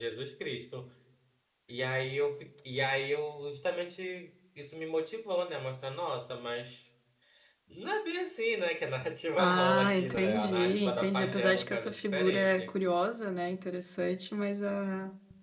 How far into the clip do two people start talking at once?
9.4 s

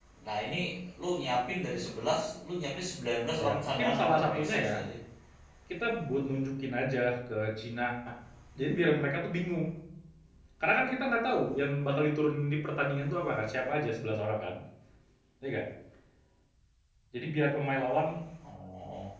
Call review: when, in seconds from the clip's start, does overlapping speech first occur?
3.4 s

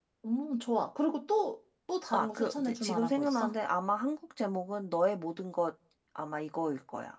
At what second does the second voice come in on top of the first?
2.1 s

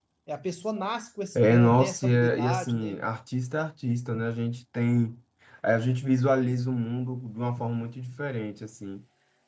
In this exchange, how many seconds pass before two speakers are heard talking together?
1.4 s

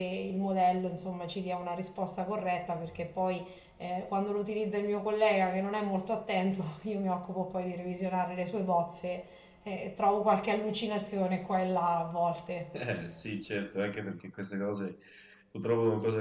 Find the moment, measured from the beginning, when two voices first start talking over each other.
none

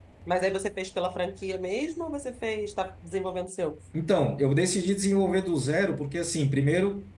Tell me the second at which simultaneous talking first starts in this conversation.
none

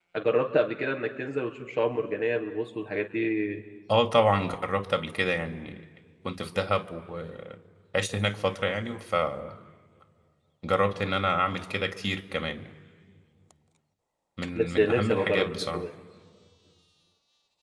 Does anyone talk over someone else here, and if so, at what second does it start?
14.6 s

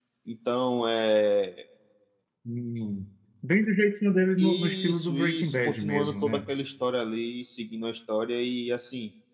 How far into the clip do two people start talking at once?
4.4 s

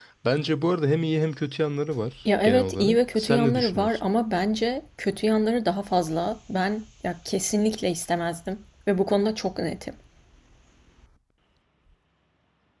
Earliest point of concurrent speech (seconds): 2.2 s

